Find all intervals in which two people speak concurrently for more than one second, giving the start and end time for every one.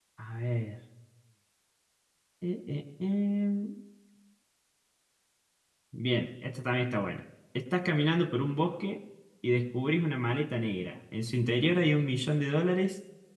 none

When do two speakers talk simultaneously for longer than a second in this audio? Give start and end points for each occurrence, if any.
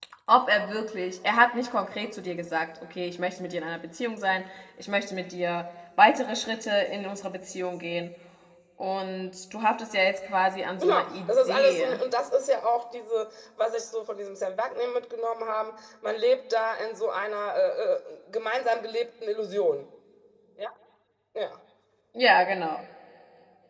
10.8-12.0

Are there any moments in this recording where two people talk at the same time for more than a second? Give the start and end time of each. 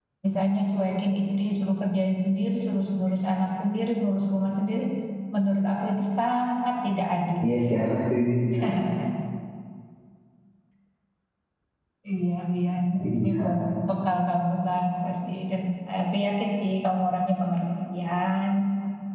none

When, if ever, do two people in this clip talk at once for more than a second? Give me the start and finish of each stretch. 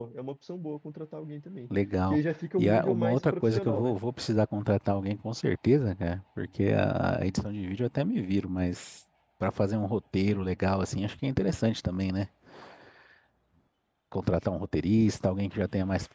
2.6-3.9

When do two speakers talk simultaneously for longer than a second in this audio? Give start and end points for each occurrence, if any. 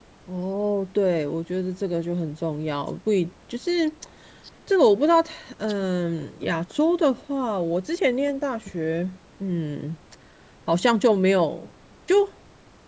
none

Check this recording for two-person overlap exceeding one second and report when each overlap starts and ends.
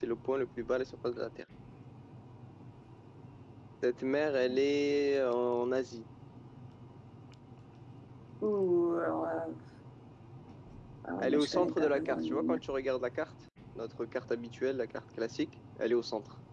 11.2-12.6

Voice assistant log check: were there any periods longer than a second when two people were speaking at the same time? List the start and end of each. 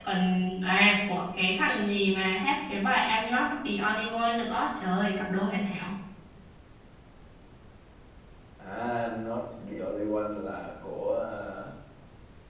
none

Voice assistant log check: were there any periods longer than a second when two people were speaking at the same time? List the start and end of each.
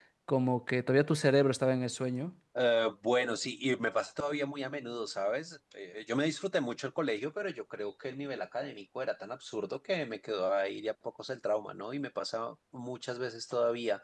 none

